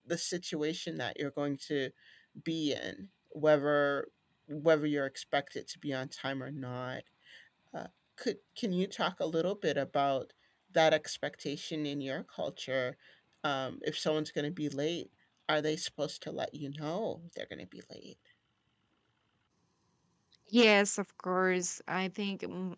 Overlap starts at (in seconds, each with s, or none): none